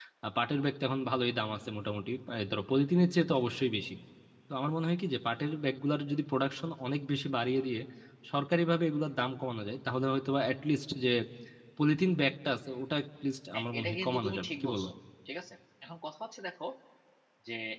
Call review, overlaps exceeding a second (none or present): present